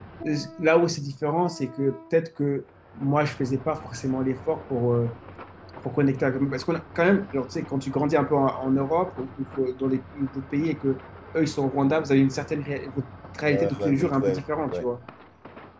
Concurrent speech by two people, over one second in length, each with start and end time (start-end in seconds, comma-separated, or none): 13.5-14.8